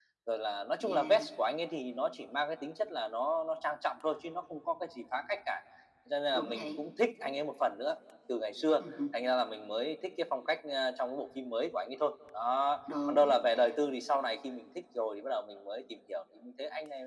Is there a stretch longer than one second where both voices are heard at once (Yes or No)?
No